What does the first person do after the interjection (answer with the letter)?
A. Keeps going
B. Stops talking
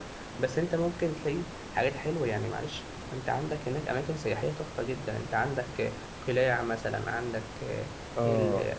A